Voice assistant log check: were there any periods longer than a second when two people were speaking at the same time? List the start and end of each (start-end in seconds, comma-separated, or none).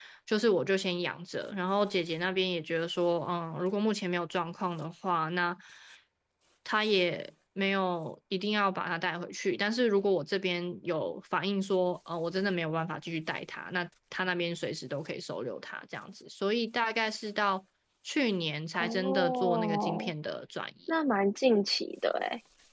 18.8-20.1